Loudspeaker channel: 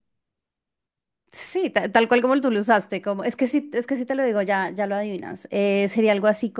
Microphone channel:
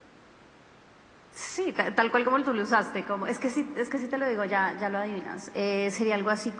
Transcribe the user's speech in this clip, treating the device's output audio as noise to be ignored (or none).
none